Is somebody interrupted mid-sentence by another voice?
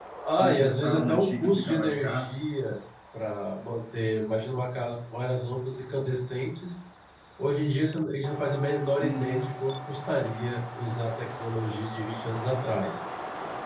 Yes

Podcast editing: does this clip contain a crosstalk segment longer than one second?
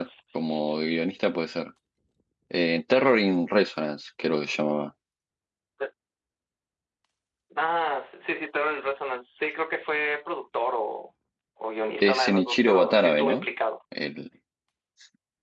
Yes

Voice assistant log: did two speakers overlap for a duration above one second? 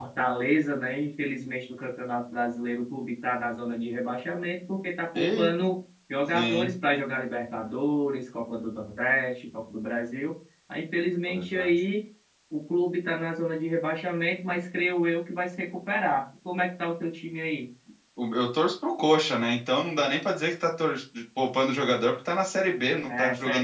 No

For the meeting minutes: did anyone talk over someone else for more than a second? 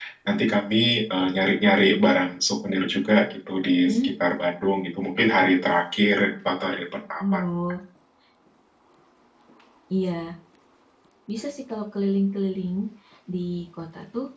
No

